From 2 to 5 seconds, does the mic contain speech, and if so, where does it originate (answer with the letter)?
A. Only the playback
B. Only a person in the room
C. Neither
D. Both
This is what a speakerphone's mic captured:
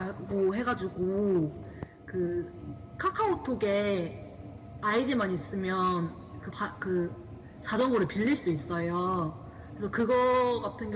A